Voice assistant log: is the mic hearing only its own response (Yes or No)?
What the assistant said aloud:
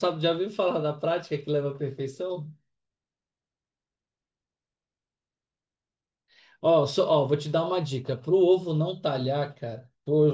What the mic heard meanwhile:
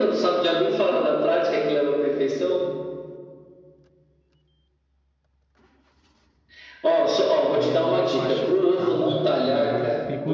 No